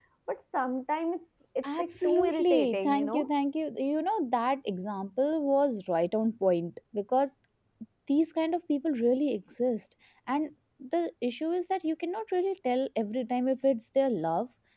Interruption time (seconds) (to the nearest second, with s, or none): 2 s